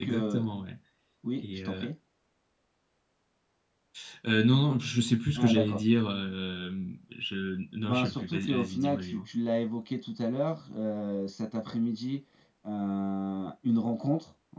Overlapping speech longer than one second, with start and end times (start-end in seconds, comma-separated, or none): 7.9-9.3